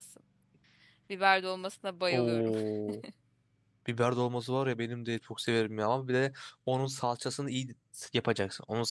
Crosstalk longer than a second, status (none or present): none